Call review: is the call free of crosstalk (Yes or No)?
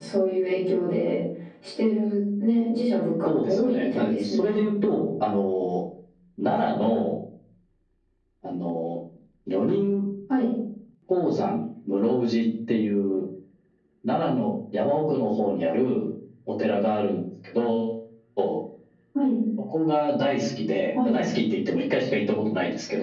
No